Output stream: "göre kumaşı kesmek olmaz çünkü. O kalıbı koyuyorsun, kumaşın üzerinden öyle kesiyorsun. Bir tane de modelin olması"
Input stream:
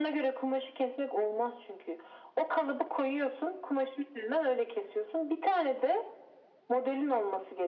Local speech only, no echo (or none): none